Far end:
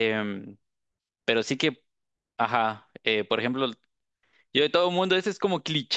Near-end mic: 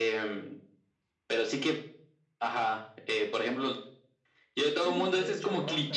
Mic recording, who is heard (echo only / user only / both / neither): both